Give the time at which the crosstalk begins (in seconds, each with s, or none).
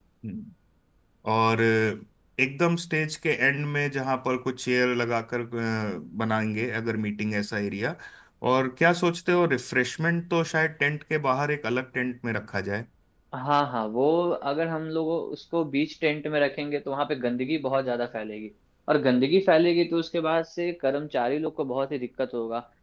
none